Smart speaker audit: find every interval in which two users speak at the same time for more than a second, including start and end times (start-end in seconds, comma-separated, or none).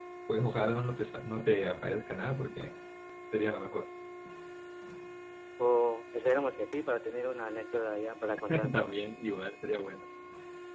none